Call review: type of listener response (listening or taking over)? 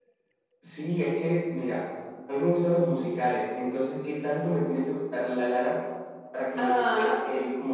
listening